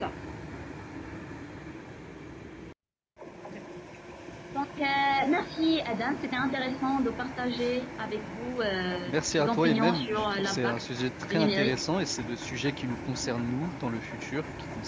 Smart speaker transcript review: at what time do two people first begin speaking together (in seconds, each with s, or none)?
9.1 s